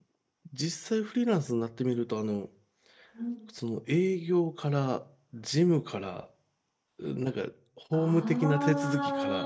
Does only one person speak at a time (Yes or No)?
No